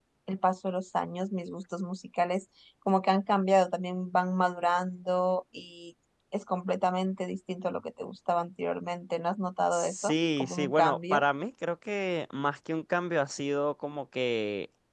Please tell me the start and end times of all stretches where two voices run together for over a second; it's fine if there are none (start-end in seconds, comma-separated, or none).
9.7-11.2